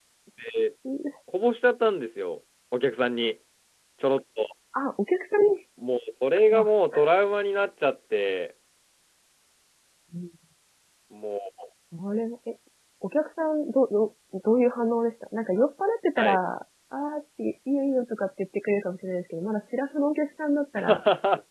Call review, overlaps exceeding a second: none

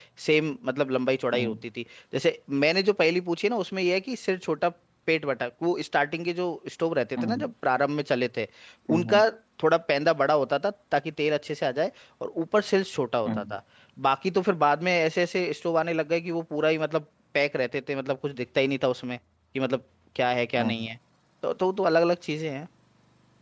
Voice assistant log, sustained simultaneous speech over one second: none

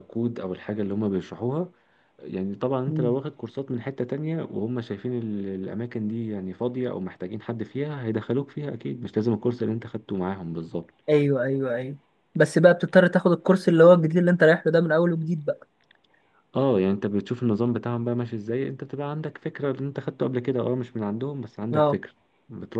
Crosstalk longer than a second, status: none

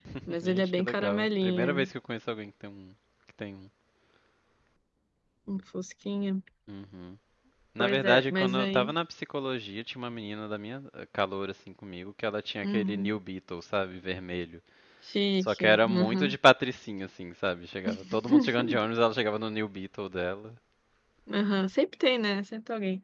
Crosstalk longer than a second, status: present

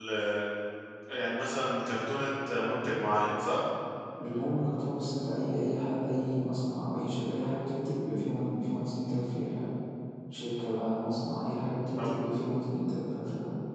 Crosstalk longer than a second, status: none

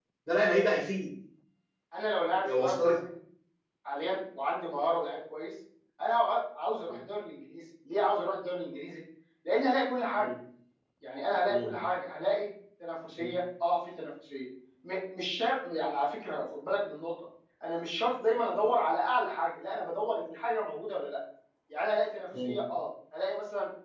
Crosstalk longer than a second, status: none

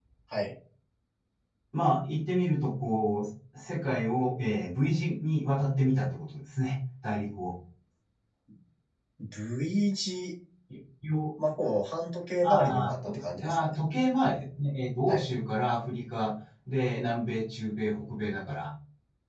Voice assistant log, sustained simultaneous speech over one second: present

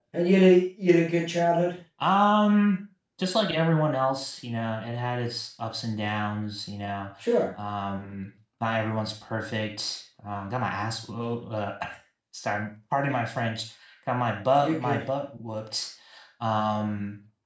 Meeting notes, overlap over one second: none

